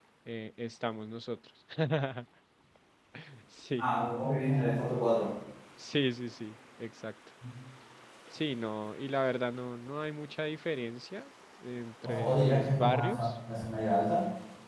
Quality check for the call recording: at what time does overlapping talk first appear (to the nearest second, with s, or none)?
12 s